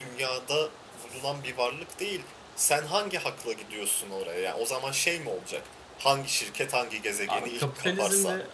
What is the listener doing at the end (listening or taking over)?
taking over